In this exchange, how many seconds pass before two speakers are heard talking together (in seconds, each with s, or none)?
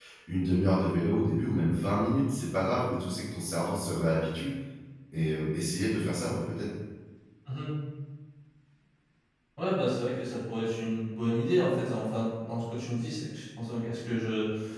none